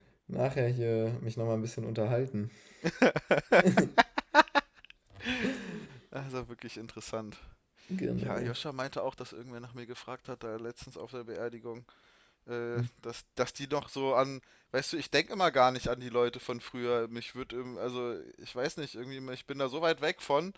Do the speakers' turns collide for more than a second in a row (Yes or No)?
No